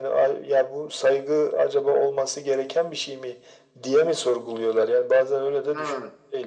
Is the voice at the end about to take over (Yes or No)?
Yes